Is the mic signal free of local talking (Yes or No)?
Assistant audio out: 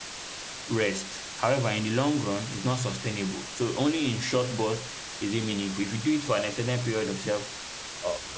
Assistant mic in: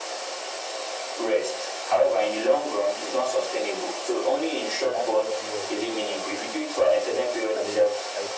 No